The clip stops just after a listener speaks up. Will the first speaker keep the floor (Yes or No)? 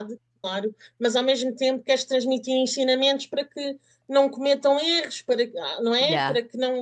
Yes